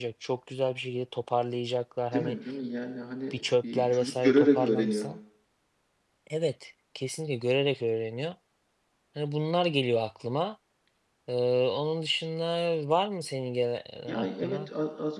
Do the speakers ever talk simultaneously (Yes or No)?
Yes